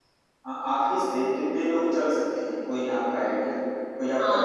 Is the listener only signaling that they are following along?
No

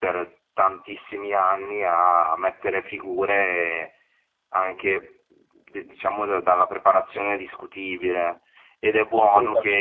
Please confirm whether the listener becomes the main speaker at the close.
No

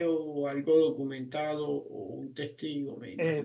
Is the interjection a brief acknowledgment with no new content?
No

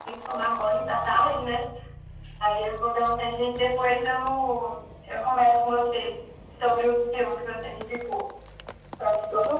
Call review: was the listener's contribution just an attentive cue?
Yes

